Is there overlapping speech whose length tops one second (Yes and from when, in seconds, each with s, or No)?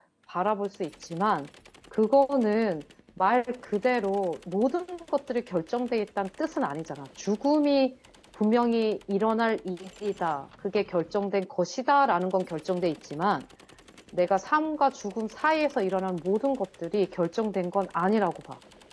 No